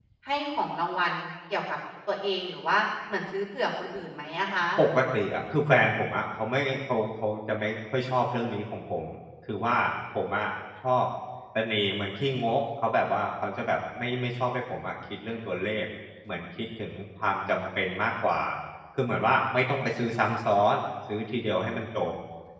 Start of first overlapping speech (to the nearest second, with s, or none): none